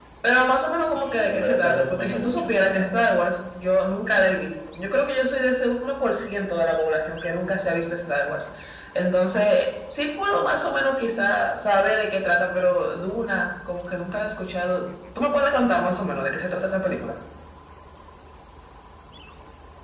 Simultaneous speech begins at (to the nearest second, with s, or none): 1 s